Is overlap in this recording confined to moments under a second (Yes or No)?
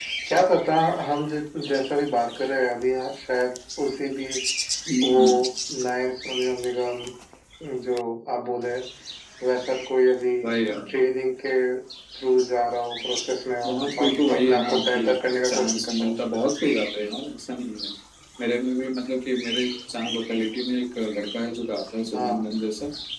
No